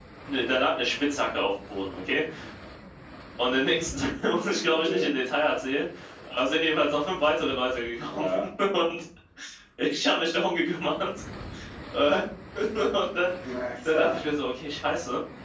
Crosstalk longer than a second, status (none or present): none